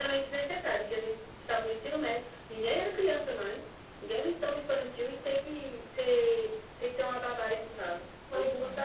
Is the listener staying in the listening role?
No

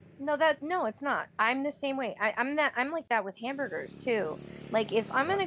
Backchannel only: Yes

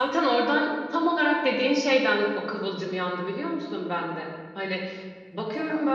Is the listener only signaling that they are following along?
Yes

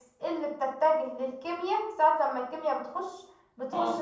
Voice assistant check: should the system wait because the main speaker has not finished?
Yes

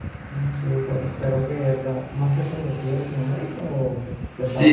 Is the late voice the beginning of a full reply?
Yes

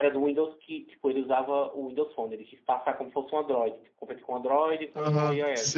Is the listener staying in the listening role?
No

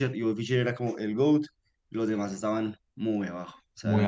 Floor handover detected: Yes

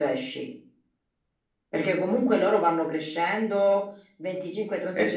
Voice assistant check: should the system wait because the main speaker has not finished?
Yes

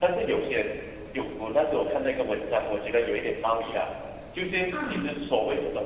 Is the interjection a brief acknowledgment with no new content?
Yes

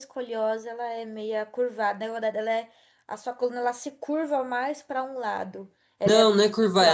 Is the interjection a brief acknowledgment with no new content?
No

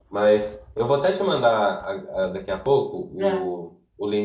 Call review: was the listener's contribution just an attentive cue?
Yes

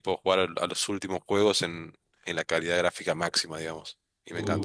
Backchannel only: No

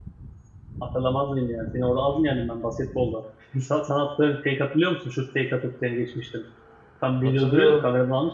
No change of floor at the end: No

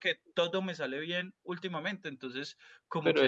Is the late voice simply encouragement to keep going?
No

